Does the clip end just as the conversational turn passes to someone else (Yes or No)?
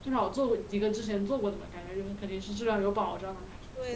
Yes